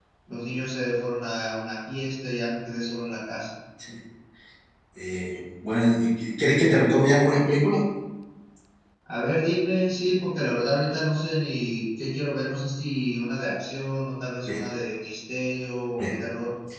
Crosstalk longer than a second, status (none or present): none